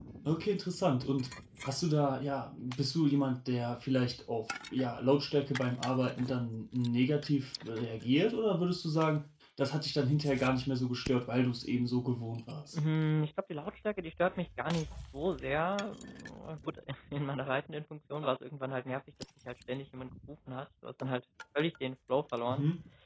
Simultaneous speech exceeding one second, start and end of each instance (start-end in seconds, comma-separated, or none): none